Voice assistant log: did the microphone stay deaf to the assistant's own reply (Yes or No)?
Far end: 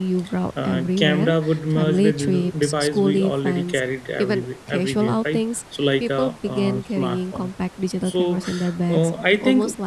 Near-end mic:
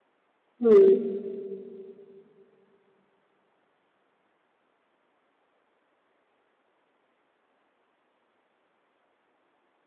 Yes